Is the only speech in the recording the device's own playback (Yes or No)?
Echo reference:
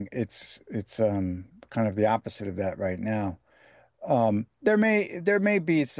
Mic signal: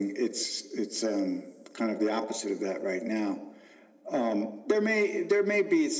Yes